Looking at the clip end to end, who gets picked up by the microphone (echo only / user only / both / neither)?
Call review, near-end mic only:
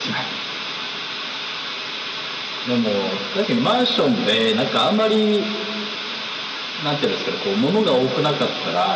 echo only